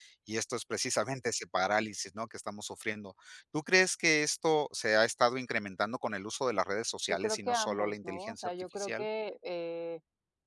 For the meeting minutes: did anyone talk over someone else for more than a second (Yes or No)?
Yes